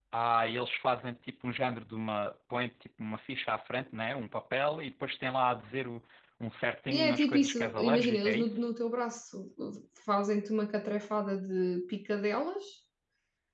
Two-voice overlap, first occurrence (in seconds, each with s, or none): 6.9 s